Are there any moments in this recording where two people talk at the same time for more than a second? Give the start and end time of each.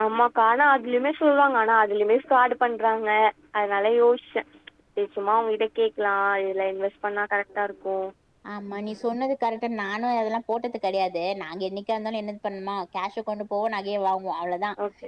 none

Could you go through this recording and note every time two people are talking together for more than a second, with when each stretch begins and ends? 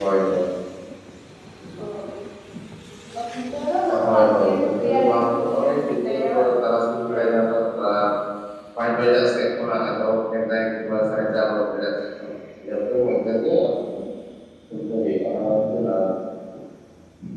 4.0-6.2

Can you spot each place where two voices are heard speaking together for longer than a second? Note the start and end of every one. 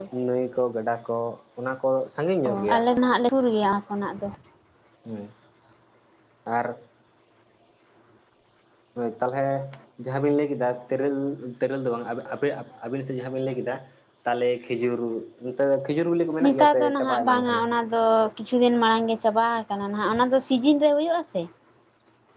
16.4-17.6

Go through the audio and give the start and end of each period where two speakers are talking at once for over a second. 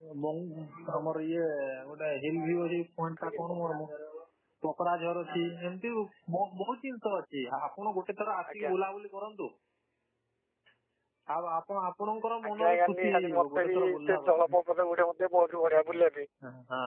12.5-14.4

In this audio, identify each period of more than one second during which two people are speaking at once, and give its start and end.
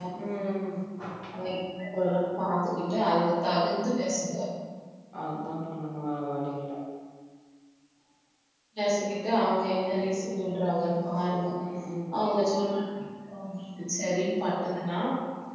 none

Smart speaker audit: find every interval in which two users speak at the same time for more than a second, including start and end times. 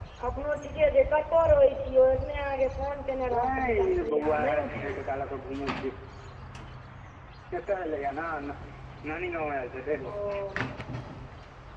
3.3-5.1

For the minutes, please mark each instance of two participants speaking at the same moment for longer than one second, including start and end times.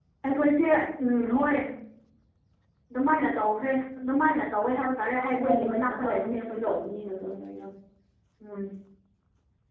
5.4-6.7

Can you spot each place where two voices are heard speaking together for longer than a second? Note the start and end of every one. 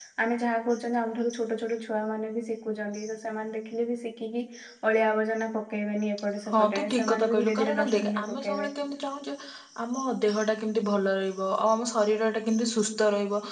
6.5-8.7

